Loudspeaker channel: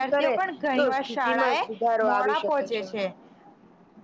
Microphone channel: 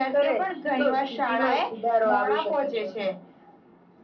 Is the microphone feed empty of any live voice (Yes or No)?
Yes